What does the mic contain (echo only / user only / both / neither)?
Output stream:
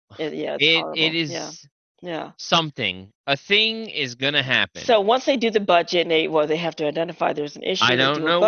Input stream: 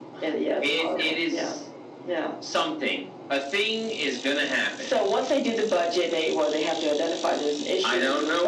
echo only